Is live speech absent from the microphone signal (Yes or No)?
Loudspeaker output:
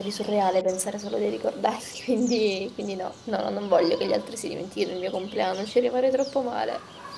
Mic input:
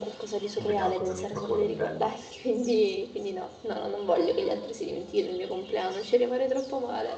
No